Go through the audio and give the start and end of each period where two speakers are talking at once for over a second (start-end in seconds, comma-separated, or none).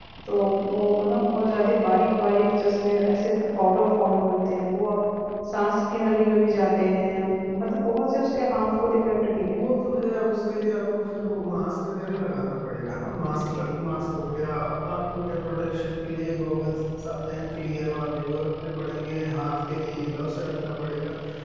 none